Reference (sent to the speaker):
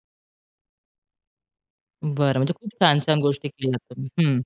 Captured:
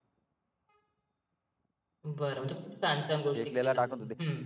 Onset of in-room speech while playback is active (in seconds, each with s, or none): 3.3 s